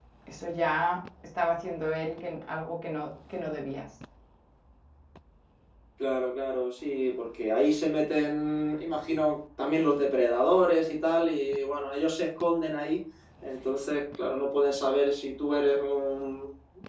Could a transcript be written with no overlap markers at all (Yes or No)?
Yes